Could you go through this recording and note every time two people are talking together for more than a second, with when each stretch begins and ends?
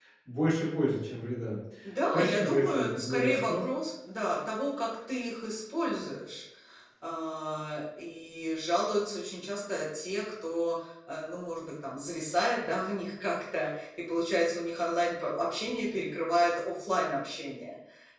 2.1-3.6

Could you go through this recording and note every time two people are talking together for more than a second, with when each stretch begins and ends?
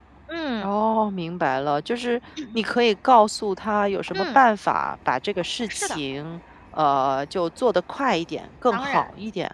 none

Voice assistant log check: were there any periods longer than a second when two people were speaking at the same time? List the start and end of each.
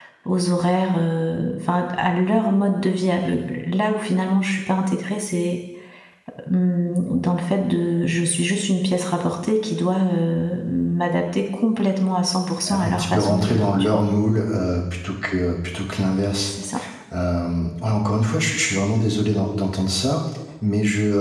12.7-14.1

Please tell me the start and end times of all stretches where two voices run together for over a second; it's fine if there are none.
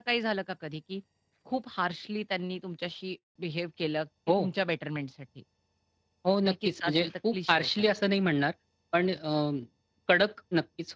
6.4-7.9

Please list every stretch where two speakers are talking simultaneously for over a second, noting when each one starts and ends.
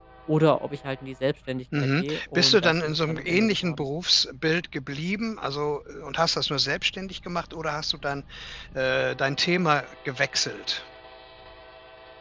1.8-3.9

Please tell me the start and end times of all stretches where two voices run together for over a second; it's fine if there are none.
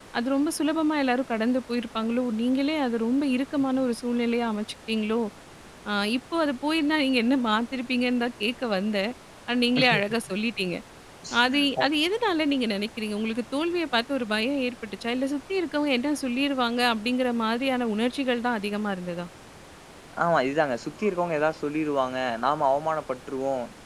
none

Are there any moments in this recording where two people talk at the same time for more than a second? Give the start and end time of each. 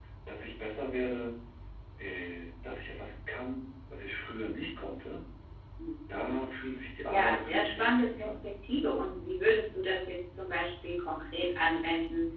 7.0-8.3

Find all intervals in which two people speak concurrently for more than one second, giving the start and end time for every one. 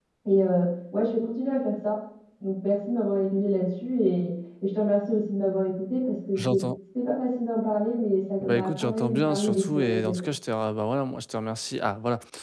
8.4-10.1

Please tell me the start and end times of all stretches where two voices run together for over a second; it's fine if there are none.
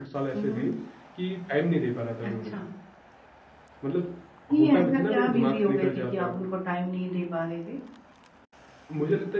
4.6-6.3

